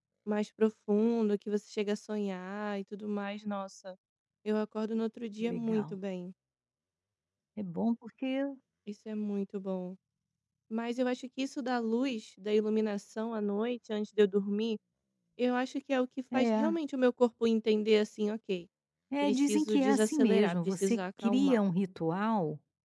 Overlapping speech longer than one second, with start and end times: 19.2-21.6

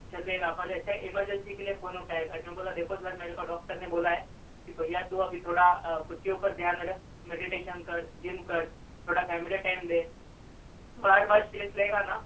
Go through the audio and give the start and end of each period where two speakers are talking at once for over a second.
none

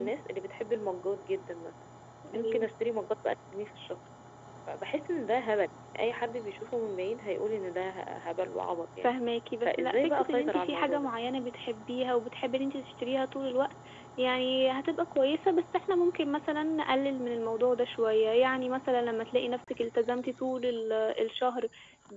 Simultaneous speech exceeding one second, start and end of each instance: 9.7-11.1

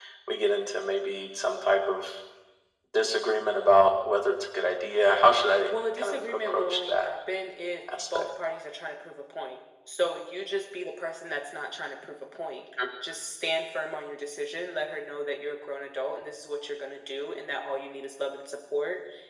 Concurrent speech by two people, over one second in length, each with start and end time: 5.7-7.1

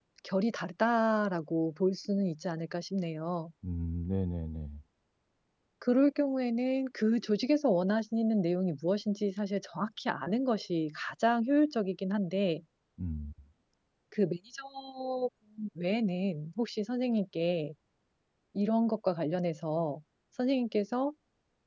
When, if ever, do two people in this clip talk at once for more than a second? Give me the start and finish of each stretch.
none

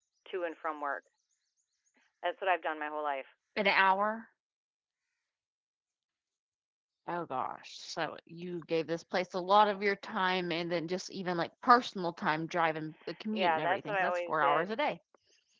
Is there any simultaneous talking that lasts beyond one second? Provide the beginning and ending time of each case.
13.3-14.7

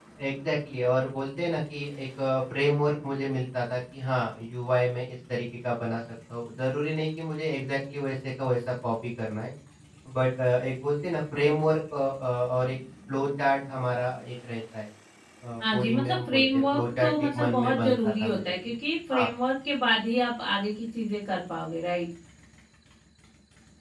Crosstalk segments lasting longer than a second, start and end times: 15.7-18.7

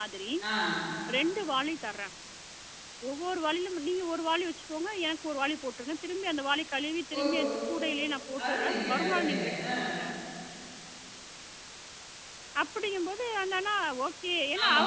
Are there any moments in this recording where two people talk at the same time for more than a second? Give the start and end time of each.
8.5-9.8

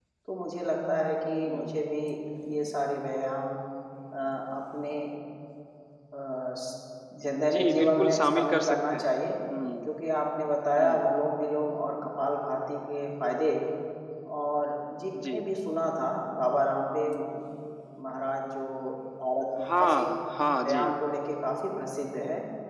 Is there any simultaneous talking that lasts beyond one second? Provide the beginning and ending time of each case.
7.5-9.1

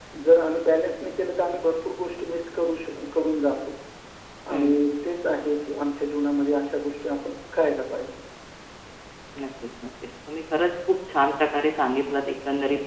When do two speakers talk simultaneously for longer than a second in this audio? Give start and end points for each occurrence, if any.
none

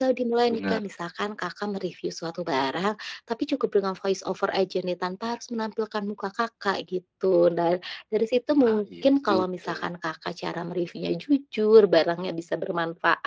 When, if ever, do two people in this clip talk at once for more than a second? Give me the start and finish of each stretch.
8.7-9.9

